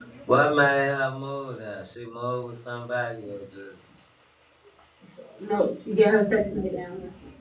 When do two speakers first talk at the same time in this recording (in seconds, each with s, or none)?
none